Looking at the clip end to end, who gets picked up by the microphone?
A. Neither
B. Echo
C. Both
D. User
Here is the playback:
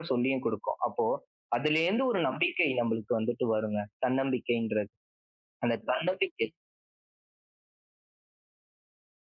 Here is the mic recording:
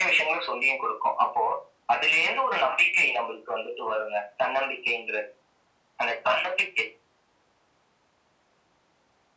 B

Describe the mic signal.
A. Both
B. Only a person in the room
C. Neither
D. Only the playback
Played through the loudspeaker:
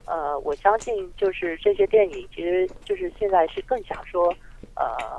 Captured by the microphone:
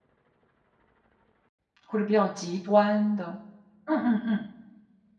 B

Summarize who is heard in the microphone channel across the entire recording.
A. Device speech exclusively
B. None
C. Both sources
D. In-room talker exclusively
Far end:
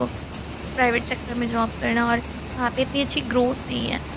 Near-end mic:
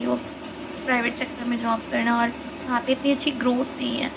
A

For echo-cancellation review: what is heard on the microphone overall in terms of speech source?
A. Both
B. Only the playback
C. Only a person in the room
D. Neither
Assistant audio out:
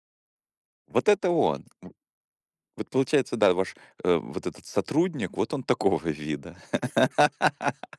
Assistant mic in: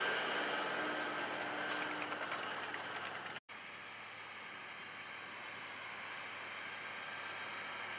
D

